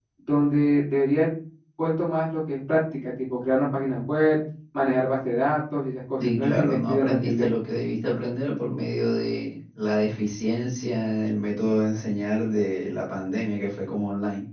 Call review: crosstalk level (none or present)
present